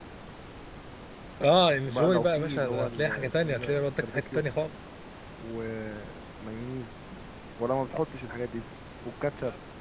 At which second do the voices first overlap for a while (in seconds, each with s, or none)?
1.9 s